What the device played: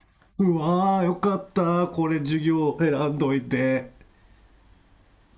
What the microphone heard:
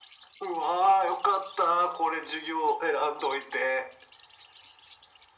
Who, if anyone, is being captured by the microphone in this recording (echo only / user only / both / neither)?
echo only